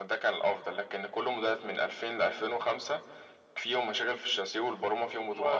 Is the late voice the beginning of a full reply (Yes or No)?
Yes